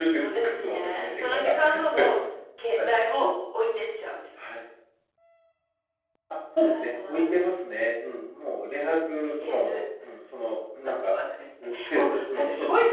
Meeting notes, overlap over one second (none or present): present